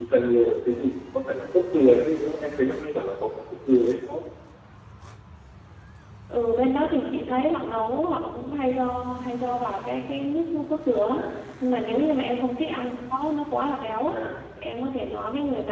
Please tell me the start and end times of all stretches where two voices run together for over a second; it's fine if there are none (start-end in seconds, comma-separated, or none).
none